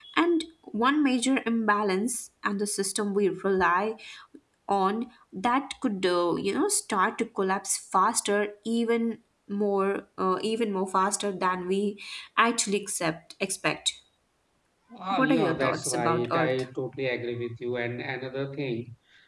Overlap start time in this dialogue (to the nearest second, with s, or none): 15 s